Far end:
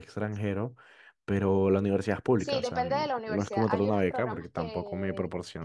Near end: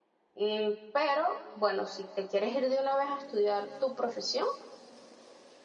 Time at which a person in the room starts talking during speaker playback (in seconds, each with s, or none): 0.3 s